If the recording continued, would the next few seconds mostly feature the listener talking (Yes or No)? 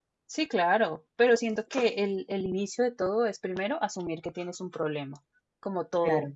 No